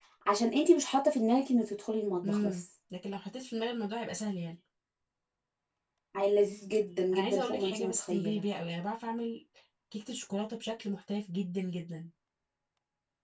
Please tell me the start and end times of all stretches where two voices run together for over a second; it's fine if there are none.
7.1-8.4

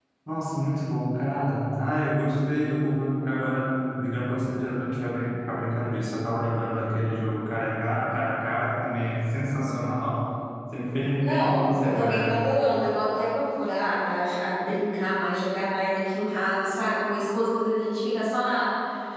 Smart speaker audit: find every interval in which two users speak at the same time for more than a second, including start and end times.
11.2-12.5

